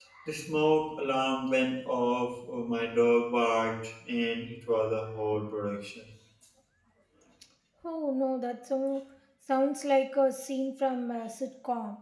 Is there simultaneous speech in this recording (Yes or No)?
No